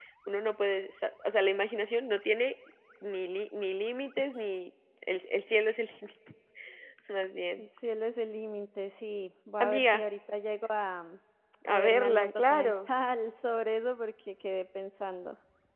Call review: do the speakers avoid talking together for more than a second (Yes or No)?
No